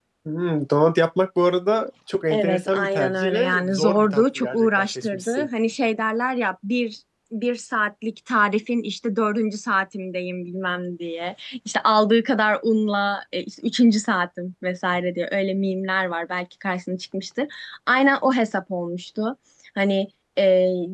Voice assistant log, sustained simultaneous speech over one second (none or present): present